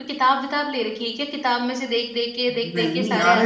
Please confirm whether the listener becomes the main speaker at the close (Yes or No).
Yes